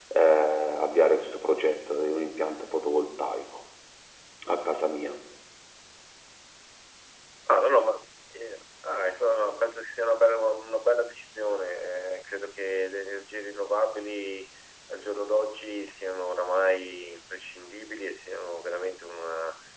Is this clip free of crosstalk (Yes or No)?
Yes